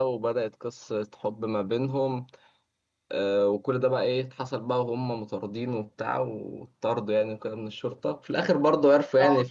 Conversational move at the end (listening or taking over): listening